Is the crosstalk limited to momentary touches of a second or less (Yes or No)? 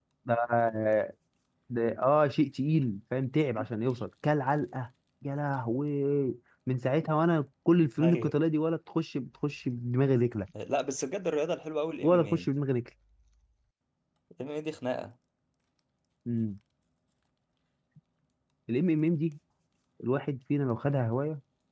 Yes